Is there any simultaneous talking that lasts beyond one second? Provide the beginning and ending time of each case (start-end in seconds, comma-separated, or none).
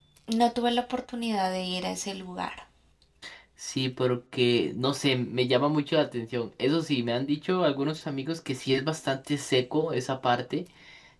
none